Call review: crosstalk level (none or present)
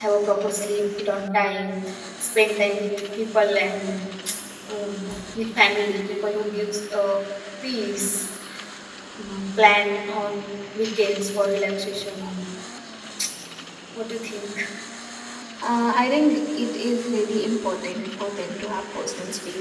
none